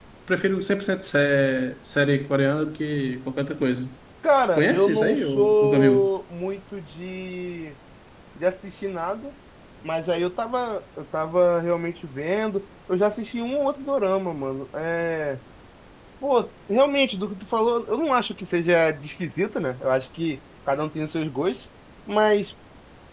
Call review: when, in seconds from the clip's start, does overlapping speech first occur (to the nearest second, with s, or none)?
5 s